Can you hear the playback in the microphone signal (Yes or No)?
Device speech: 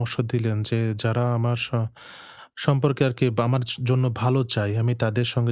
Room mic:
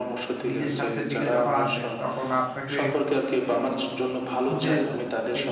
Yes